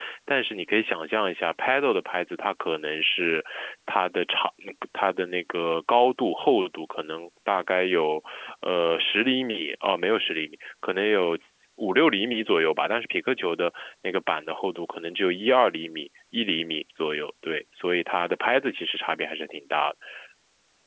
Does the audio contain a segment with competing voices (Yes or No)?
No